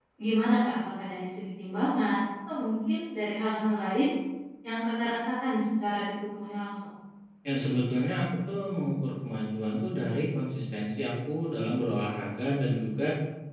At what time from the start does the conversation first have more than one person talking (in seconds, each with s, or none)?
none